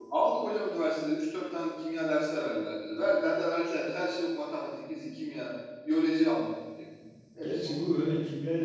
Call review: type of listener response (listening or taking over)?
taking over